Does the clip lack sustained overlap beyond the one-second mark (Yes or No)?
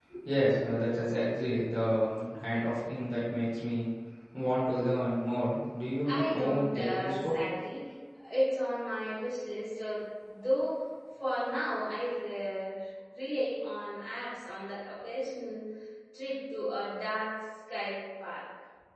No